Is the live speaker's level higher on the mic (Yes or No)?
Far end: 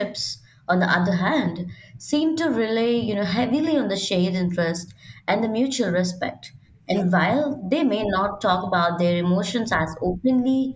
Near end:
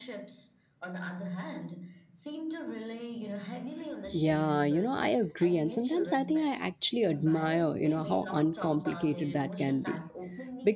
Yes